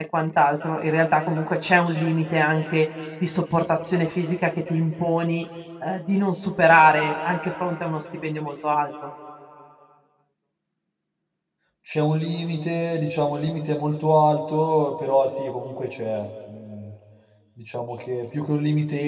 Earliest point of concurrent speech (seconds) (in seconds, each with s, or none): none